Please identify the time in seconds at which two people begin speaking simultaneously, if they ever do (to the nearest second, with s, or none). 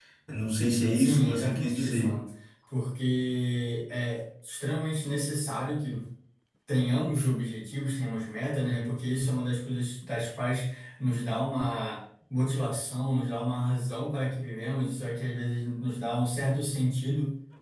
1 s